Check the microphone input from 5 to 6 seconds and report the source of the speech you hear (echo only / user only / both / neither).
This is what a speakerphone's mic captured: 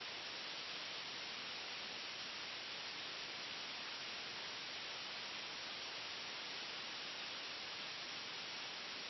neither